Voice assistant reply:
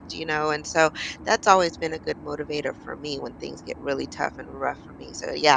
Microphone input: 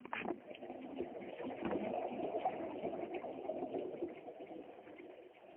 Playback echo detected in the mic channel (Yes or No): No